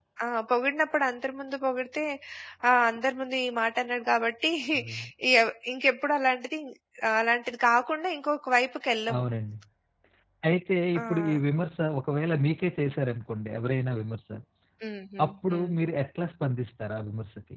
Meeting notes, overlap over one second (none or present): none